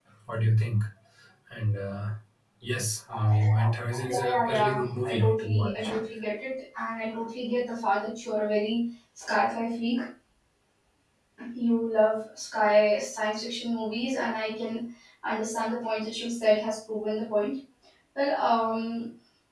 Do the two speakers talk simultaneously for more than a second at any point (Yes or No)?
Yes